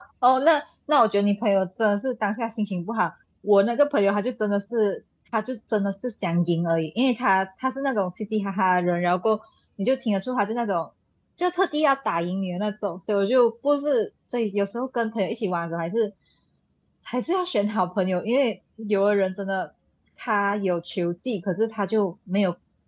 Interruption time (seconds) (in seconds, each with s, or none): none